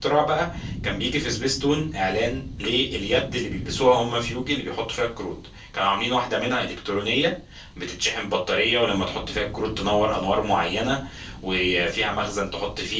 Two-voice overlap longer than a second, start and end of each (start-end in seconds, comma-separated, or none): none